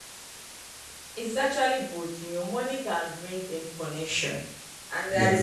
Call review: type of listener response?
listening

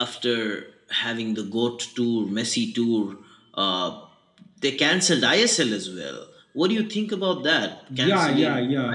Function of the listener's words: taking over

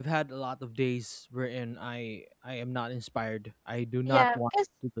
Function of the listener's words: taking over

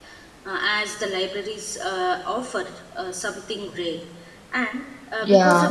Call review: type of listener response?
listening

